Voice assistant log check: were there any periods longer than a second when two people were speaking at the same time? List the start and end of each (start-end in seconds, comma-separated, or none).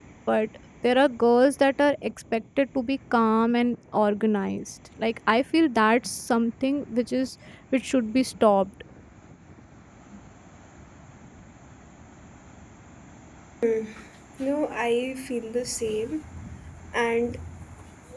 none